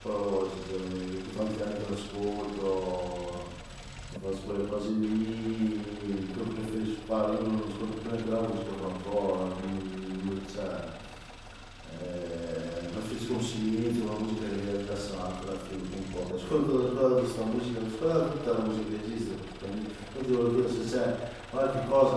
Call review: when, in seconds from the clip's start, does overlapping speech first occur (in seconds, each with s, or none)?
none